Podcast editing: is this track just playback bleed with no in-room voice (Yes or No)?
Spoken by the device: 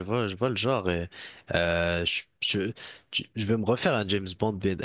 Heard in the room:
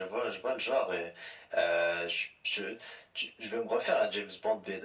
Yes